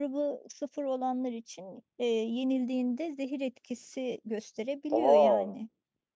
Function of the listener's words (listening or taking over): listening